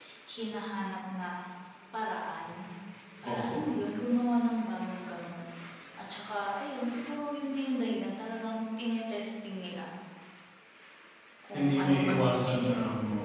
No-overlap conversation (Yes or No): No